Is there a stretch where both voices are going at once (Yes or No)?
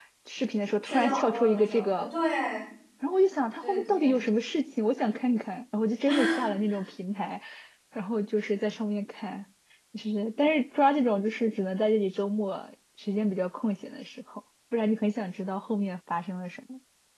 Yes